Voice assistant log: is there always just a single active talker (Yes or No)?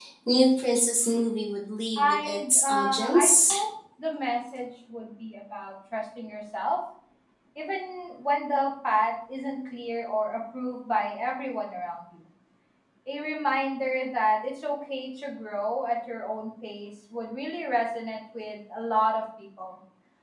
No